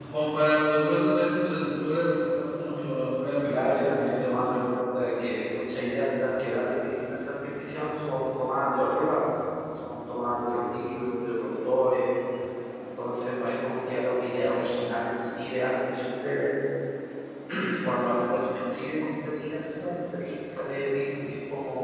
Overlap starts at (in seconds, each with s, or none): 3.4 s